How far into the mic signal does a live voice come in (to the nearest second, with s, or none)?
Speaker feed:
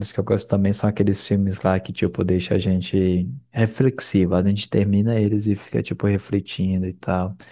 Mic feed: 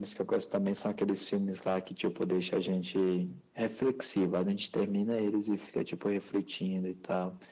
none